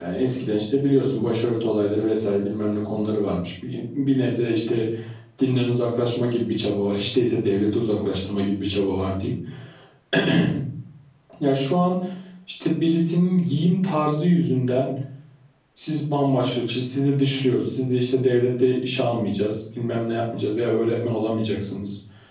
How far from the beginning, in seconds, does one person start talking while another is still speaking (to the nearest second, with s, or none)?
none